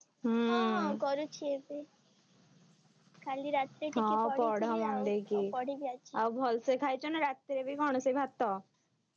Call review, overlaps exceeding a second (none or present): present